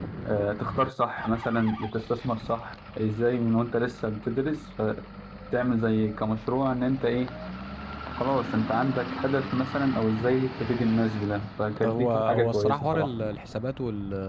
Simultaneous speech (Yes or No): Yes